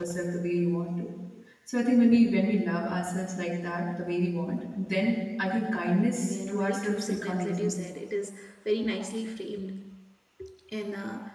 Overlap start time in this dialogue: 6.2 s

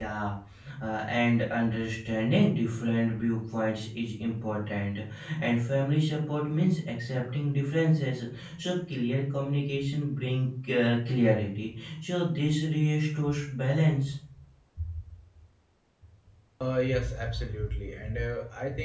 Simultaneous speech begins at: none

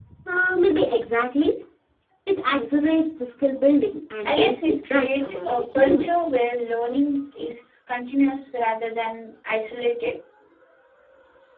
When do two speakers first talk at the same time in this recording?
4.2 s

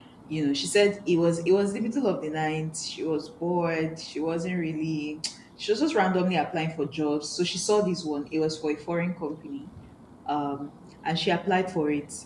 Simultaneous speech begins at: none

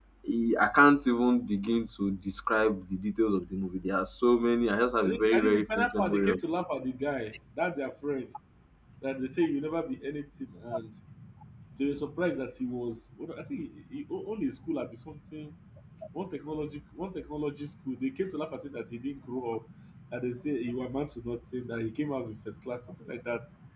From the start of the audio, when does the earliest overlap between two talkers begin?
5.0 s

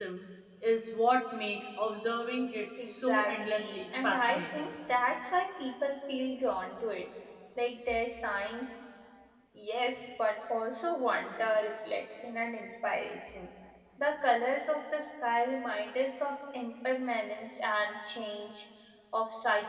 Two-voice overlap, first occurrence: 2.8 s

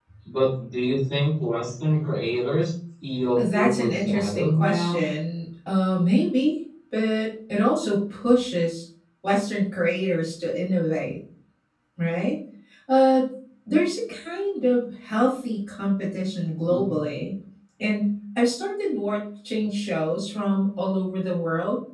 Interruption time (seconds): 3.4 s

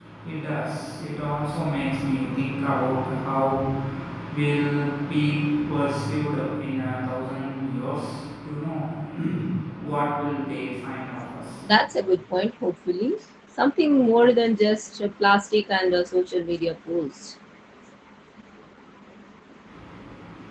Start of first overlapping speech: none

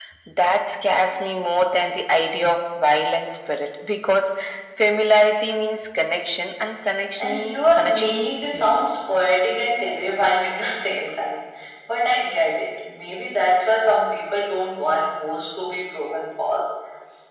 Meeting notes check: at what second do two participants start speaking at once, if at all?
7.2 s

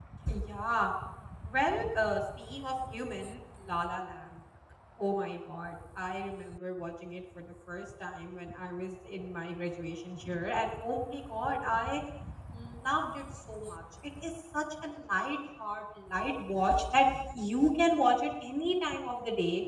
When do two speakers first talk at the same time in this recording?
none

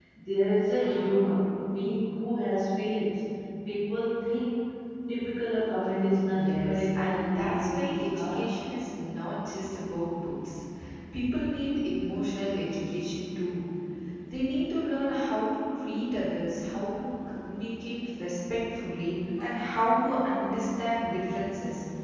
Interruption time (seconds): 6.1 s

